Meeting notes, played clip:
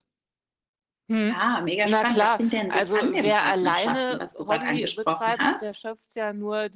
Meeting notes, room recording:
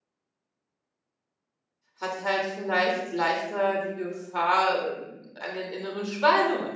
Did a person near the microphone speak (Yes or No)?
Yes